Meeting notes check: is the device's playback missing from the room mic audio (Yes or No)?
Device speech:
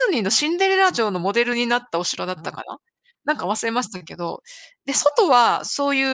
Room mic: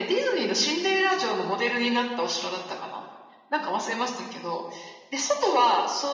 No